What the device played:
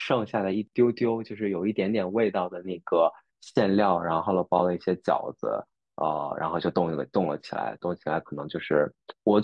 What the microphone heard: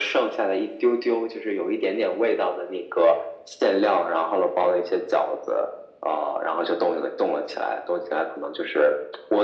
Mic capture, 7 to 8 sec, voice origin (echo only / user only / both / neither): echo only